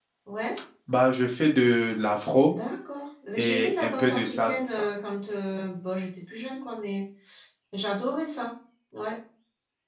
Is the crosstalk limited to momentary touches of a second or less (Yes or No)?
No